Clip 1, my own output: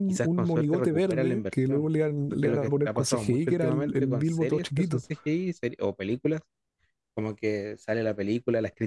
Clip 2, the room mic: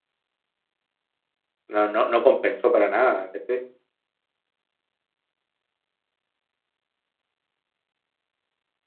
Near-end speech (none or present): present